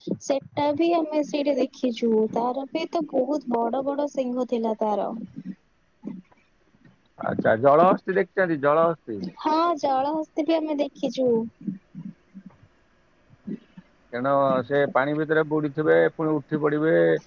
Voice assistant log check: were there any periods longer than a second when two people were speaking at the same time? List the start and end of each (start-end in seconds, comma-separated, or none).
none